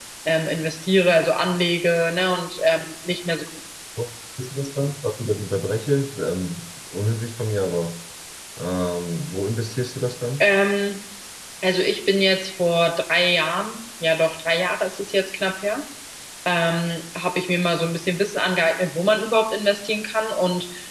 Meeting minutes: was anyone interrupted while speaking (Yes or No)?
No